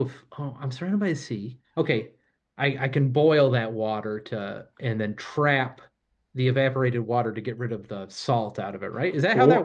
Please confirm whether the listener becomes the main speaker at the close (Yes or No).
Yes